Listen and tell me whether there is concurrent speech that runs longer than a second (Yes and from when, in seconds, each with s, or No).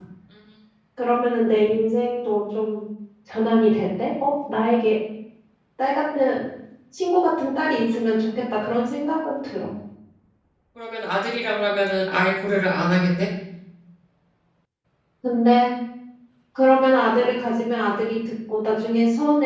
No